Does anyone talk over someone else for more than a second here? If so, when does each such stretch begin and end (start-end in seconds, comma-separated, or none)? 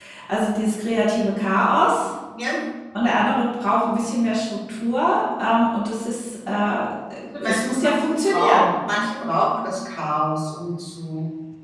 7.4-8.6